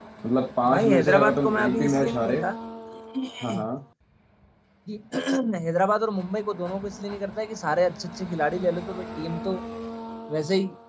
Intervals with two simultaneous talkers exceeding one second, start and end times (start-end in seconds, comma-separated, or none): 0.7-2.4